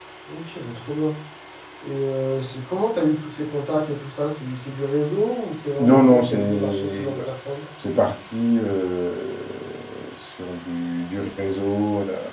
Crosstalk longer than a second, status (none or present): present